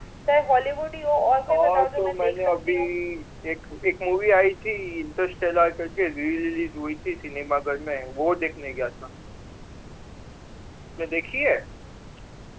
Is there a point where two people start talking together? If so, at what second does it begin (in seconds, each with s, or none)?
1.5 s